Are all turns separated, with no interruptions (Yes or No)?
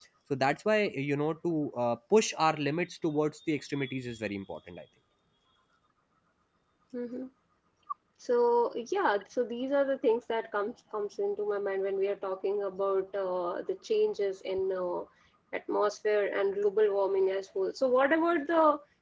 Yes